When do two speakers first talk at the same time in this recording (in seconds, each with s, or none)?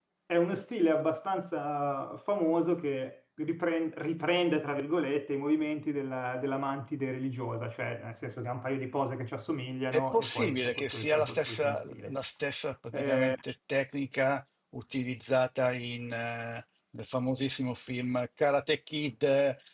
9.9 s